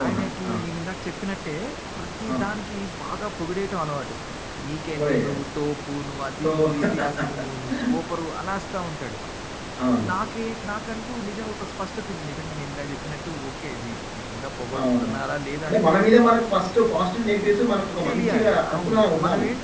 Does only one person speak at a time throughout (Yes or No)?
No